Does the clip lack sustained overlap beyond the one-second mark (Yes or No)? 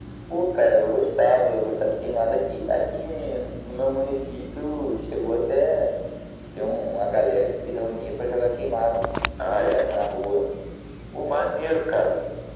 Yes